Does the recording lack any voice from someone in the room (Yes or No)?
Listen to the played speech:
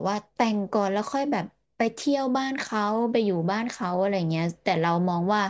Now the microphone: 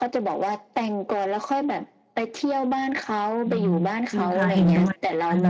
No